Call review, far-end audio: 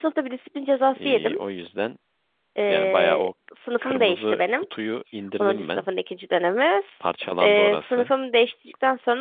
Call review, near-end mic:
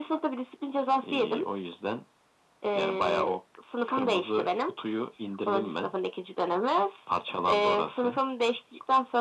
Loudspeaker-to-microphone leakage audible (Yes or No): Yes